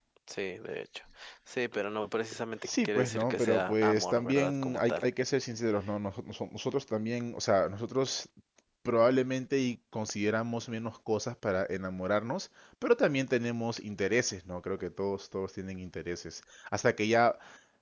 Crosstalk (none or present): present